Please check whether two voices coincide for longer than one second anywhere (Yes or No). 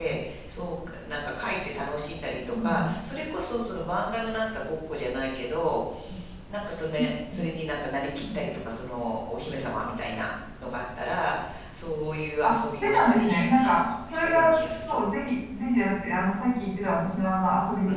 Yes